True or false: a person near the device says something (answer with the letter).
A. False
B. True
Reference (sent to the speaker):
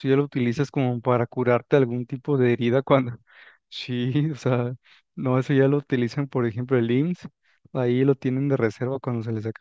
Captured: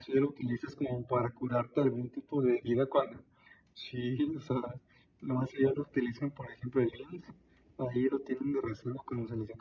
A